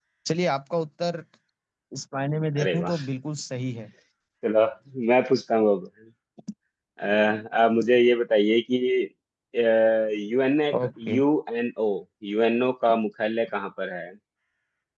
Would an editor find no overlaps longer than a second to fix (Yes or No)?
Yes